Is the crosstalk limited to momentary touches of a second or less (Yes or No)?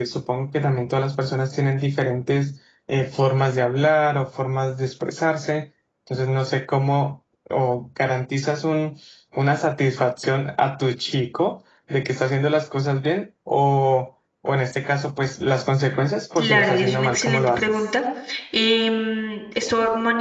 No